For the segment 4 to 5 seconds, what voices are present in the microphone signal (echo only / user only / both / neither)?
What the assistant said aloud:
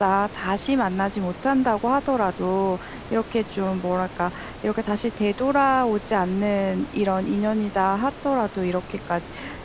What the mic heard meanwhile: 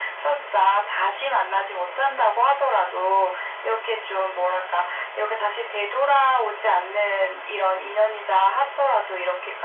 echo only